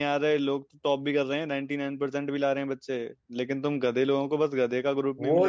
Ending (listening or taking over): taking over